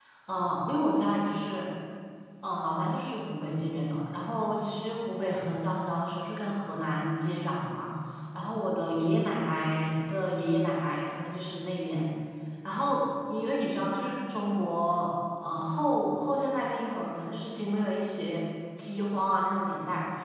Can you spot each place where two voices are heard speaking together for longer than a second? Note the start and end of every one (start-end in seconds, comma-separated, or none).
none